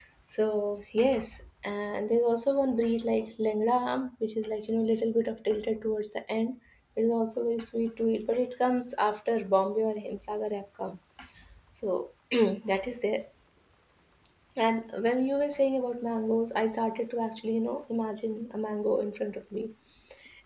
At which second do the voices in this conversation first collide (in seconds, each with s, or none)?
none